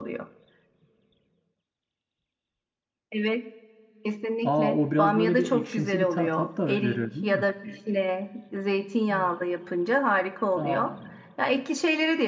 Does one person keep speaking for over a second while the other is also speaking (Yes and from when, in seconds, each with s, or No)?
Yes, from 4.4 s